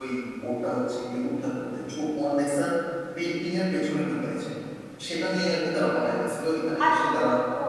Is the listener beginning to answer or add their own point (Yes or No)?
Yes